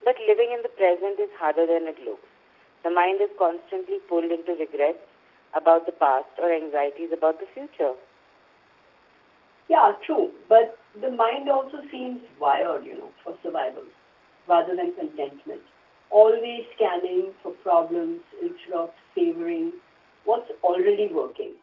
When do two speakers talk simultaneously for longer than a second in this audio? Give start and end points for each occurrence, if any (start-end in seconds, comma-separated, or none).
none